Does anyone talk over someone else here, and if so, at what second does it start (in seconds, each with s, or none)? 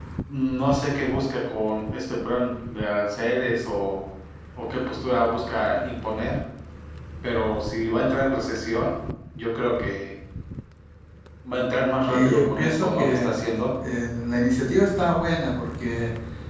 12.1 s